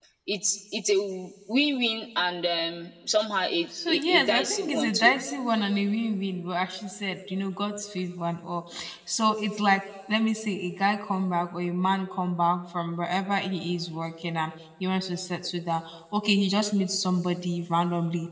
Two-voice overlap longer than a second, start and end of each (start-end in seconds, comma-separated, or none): 3.9-5.2